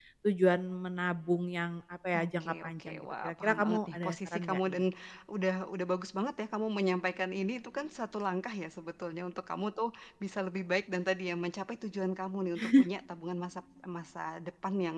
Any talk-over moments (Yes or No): Yes